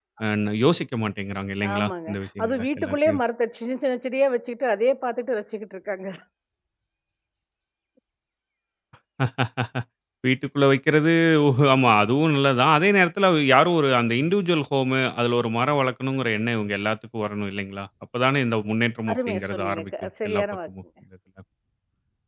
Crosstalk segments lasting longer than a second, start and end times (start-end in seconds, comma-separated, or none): 1.7-3.2, 19.1-20.7